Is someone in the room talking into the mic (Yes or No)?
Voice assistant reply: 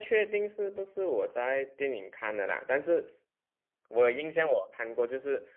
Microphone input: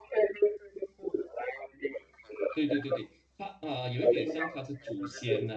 Yes